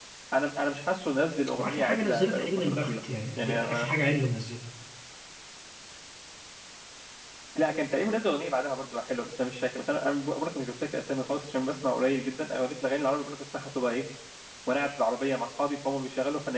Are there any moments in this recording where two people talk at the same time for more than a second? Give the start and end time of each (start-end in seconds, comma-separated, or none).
1.6-3.0